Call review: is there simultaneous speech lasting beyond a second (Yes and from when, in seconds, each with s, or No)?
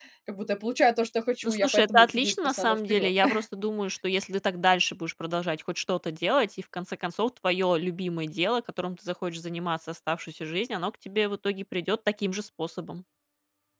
Yes, from 1.4 s